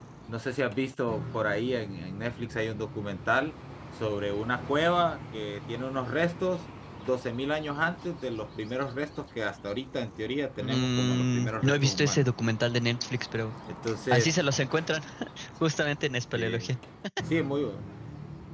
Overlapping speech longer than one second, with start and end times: 10.6-12.3

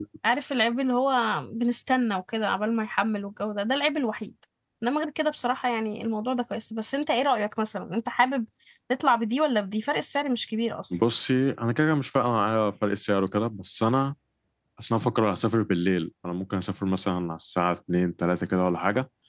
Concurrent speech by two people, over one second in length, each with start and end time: none

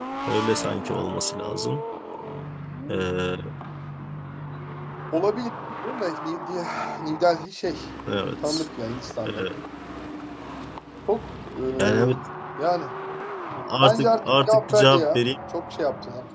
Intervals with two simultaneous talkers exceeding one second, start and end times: 13.8-15.2

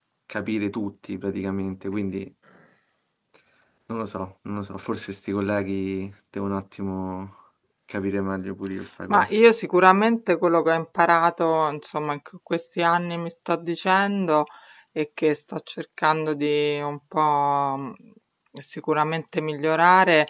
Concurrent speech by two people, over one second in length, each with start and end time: none

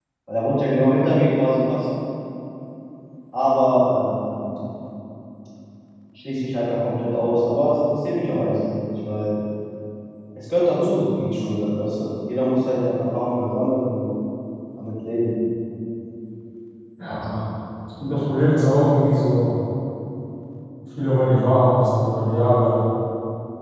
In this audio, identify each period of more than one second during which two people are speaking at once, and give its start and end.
none

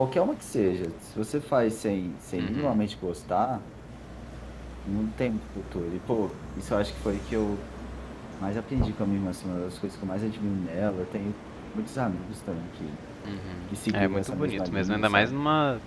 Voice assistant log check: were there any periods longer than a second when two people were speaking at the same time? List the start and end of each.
13.9-15.3

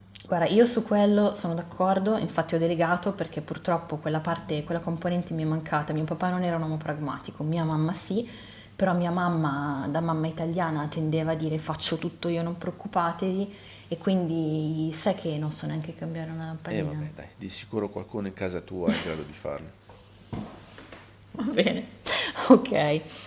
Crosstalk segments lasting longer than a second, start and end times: none

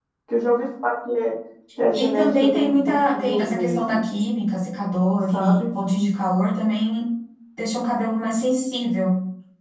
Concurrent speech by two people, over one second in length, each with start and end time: 1.9-4.0

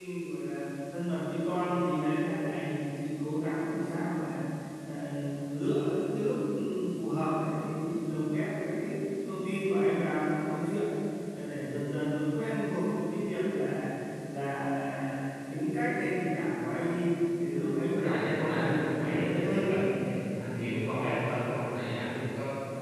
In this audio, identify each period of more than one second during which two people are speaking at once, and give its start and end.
17.9-19.8

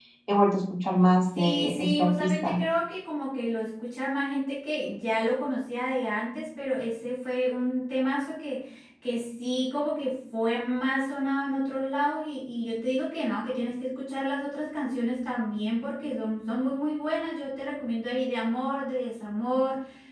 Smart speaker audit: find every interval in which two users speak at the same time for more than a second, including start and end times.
1.4-2.6

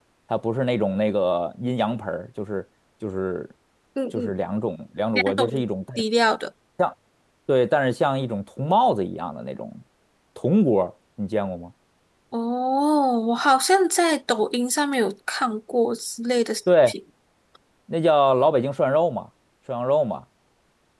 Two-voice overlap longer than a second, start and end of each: none

